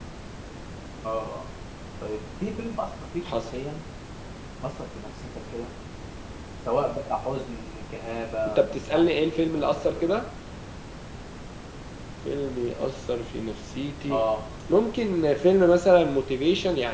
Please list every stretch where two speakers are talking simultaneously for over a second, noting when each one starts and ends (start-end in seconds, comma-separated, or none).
8.5-10.1